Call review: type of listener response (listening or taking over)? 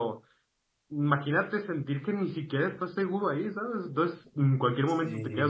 listening